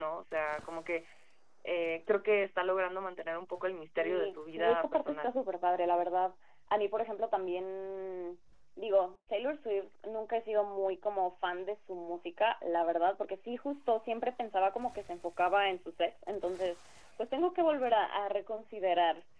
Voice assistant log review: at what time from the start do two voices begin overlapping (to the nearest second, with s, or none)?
4 s